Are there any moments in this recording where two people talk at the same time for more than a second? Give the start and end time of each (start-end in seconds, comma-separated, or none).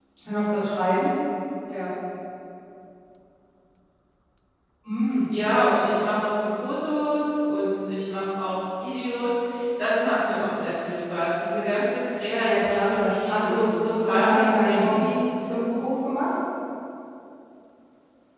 12.4-14.9